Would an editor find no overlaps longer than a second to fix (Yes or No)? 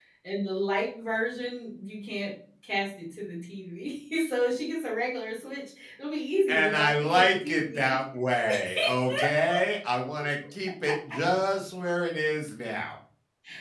No